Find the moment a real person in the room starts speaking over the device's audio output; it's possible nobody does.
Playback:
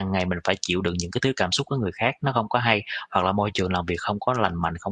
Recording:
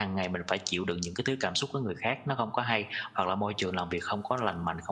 none

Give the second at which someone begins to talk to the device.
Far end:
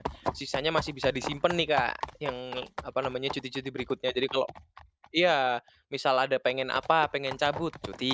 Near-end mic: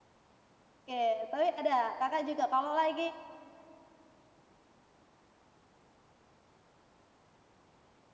0.9 s

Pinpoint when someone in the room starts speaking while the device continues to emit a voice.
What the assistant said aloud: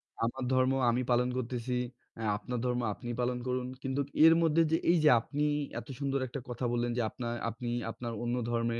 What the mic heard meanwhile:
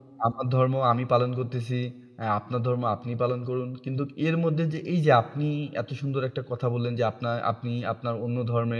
none

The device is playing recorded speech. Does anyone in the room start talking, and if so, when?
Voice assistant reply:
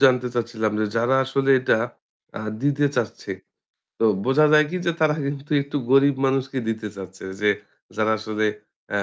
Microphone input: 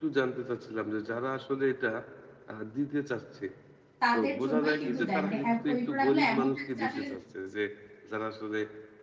4.0 s

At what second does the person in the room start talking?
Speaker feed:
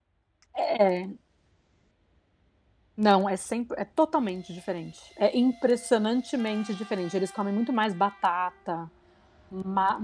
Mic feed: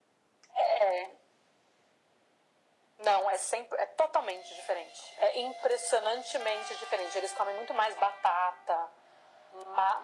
none

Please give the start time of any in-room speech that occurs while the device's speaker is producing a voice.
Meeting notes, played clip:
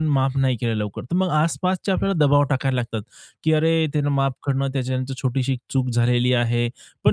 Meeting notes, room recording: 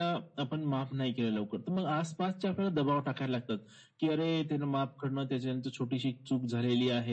none

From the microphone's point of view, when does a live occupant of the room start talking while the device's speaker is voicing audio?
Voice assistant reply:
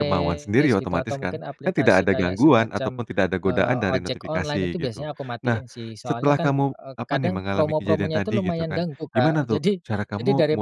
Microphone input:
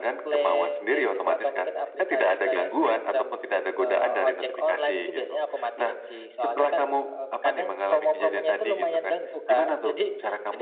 none

